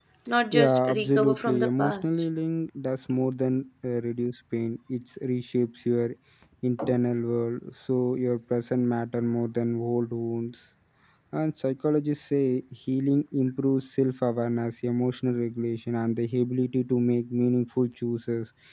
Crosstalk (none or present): present